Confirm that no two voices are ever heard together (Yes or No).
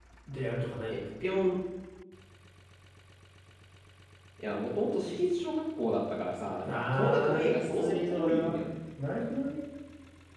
No